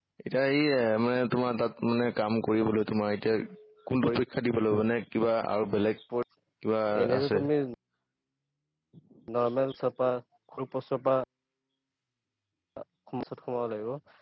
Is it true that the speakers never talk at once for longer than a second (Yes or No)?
Yes